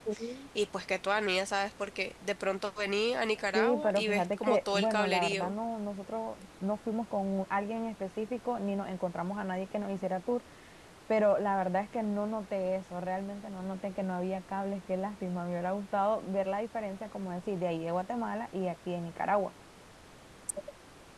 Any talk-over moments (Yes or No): Yes